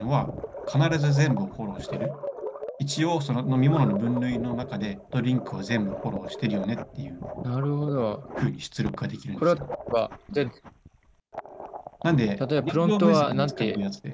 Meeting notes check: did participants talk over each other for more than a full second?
Yes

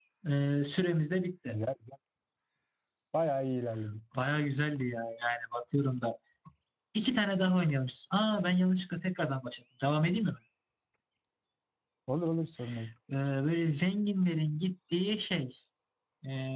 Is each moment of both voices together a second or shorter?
Yes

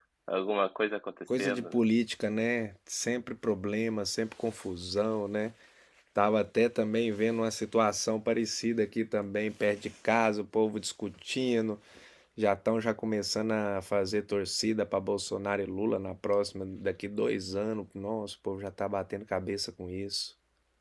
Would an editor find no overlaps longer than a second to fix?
Yes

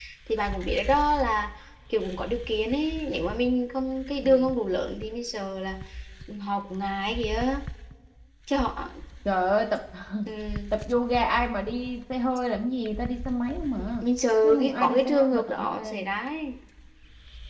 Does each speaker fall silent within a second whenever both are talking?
No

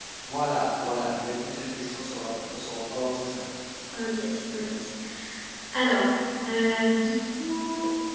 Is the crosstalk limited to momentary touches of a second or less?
Yes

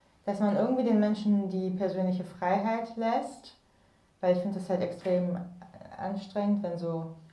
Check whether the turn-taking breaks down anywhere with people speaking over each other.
No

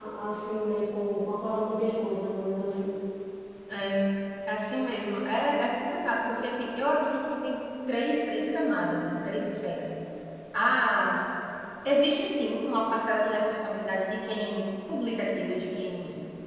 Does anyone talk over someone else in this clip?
No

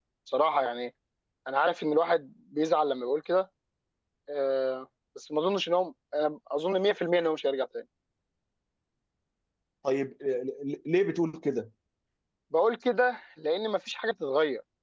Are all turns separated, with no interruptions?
Yes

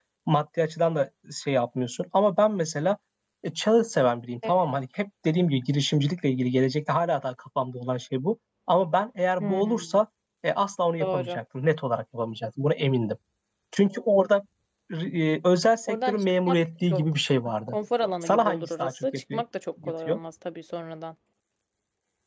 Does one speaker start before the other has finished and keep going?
Yes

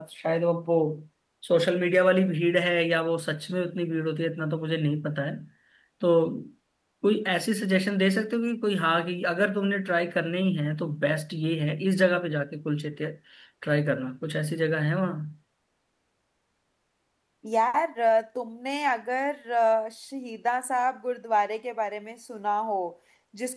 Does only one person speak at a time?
Yes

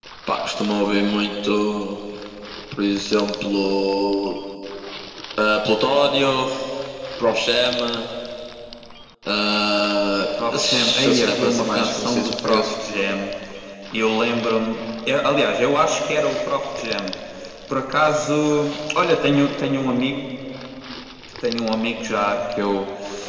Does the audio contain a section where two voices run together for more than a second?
Yes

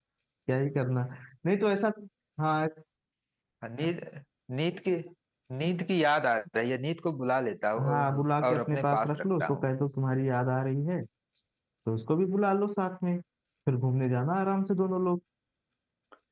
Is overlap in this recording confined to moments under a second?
No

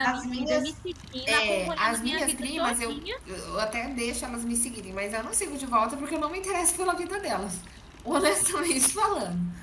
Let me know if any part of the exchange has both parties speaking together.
Yes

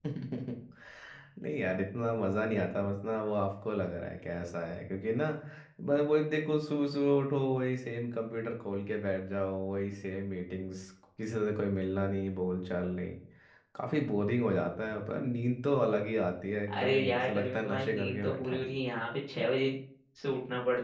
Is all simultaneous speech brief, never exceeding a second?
No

